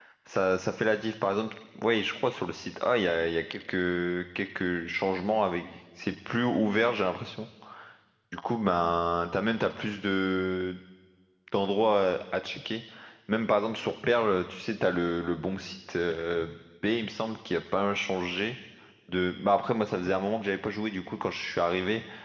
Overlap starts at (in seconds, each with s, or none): none